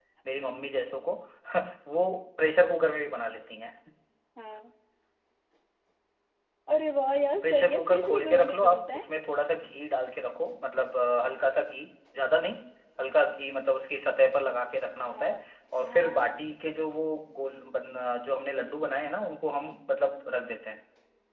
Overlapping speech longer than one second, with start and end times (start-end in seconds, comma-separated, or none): 7.4-9.0